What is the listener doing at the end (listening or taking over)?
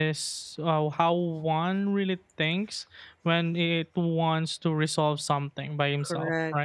taking over